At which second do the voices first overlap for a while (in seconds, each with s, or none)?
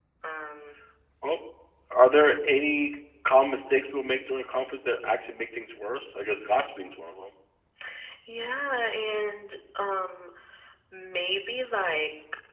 none